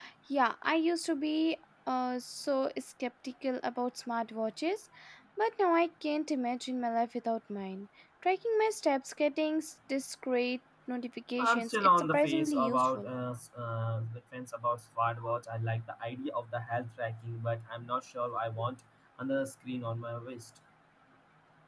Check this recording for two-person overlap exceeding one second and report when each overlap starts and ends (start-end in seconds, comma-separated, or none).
11.4-13.1